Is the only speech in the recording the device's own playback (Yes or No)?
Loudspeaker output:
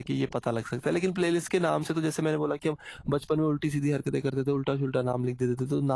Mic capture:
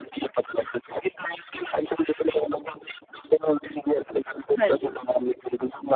No